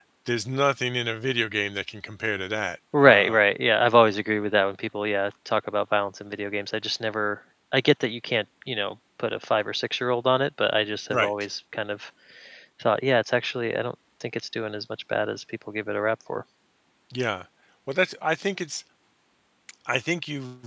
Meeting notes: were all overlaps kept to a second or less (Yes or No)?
Yes